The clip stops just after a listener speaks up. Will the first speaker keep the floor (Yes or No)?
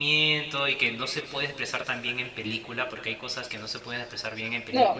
Yes